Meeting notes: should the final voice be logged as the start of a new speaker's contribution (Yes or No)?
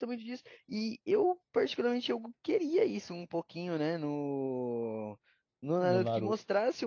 No